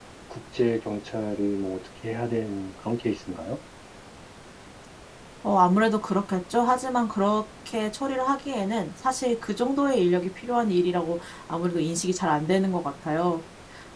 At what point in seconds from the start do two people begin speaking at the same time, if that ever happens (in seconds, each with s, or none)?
none